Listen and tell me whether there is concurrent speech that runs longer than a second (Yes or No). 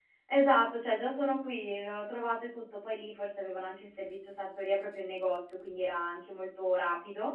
No